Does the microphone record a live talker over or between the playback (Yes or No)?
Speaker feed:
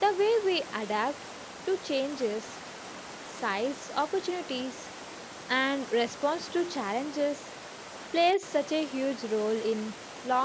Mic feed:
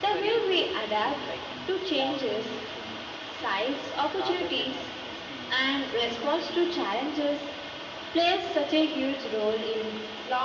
Yes